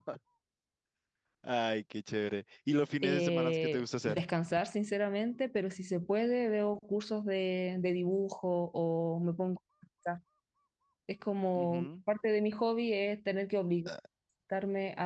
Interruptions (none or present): present